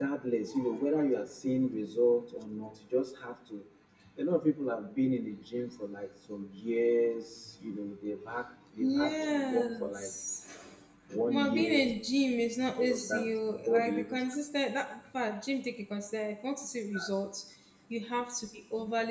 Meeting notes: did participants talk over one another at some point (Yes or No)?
Yes